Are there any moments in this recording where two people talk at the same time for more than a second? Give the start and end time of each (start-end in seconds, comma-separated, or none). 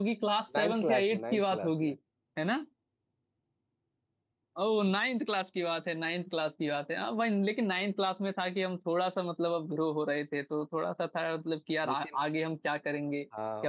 0.6-1.9